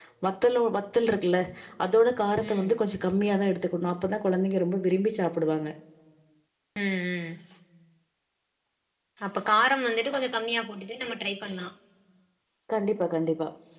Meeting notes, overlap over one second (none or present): none